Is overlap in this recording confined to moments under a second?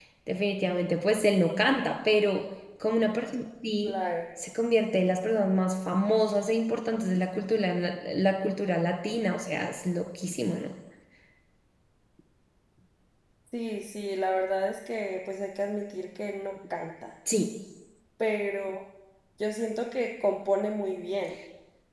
Yes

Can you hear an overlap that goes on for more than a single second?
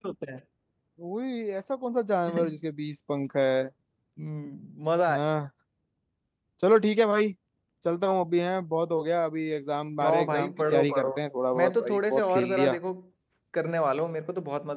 Yes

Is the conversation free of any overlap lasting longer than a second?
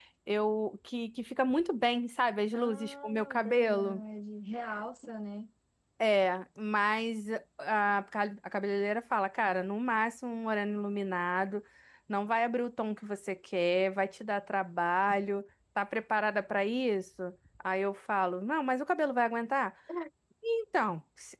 No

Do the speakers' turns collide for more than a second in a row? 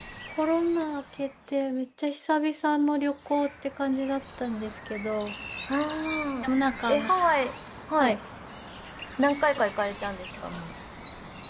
No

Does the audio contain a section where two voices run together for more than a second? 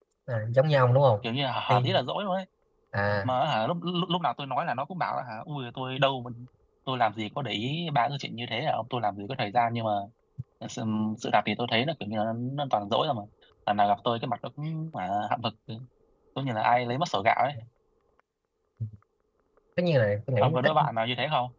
No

